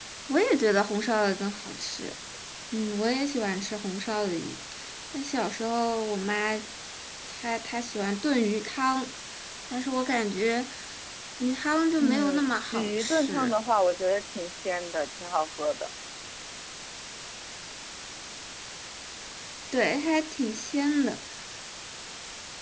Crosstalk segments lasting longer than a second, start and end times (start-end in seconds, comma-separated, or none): 12.0-13.5